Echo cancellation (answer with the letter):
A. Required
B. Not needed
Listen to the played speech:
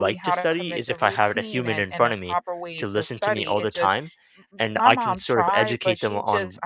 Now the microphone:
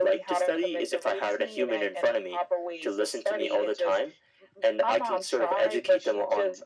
A